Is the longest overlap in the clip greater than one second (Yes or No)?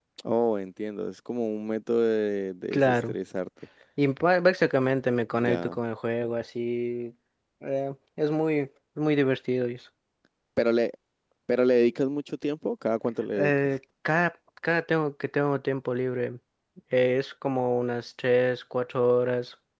No